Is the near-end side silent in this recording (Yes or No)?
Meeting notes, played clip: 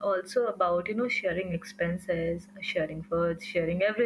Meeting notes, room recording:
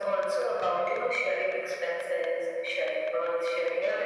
Yes